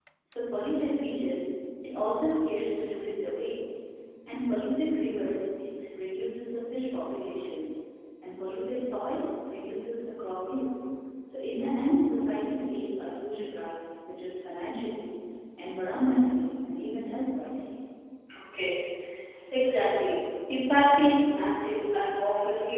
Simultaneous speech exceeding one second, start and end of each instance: none

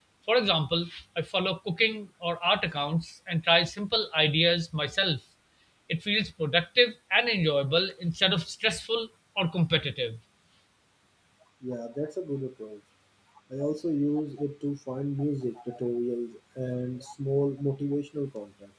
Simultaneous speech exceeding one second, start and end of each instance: none

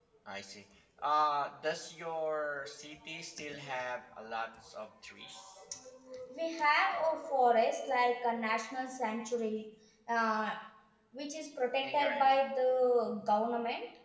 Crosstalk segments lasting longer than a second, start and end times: none

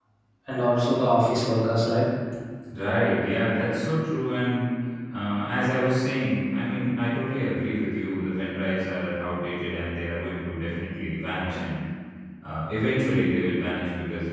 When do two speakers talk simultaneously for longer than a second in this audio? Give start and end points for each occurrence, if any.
none

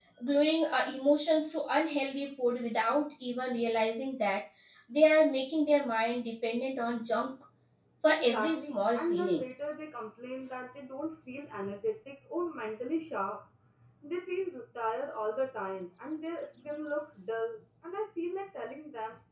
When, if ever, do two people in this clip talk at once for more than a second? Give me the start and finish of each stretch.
8.1-9.4

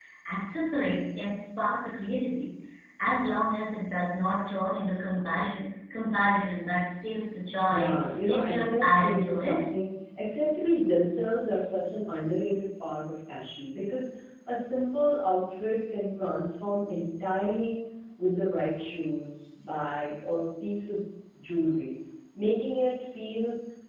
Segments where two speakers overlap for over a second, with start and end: 7.7-9.7

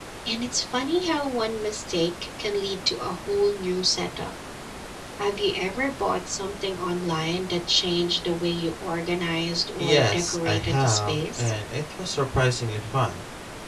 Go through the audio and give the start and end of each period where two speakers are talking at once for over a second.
9.8-11.5

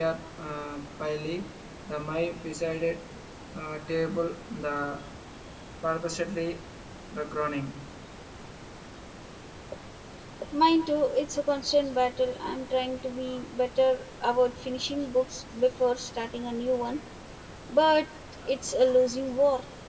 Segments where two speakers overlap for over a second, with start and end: none

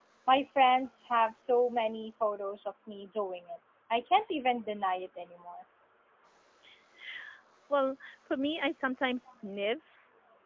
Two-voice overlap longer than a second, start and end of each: none

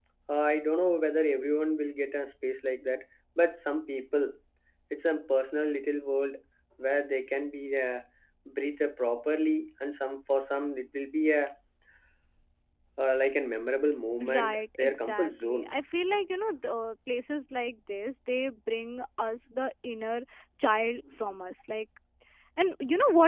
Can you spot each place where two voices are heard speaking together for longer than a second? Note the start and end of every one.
14.3-15.7

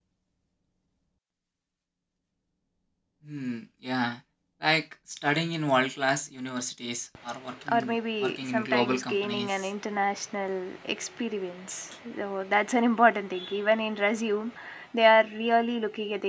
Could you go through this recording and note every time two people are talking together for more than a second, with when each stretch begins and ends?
7.7-9.7

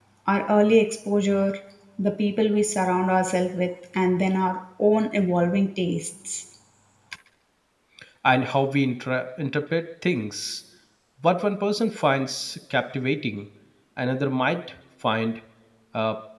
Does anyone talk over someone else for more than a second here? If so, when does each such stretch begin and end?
none

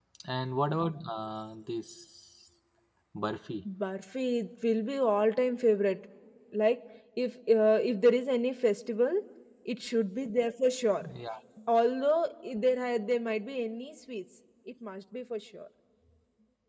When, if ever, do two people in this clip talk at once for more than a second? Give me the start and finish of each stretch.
none

